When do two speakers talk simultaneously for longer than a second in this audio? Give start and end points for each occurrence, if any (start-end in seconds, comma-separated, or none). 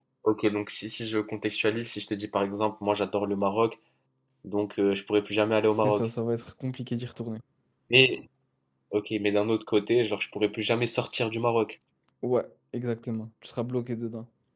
none